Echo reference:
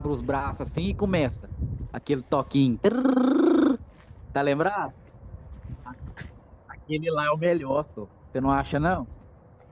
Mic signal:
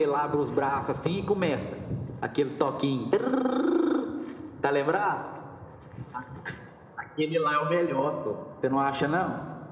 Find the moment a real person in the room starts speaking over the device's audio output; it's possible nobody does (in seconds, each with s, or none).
none